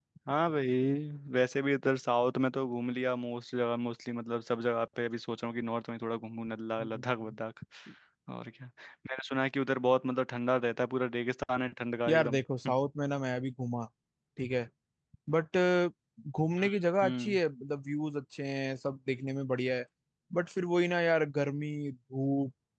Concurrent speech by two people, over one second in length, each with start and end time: none

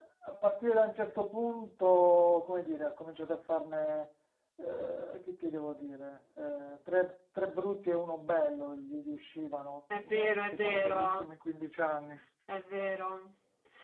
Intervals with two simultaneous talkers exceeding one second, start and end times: 10.0-11.2

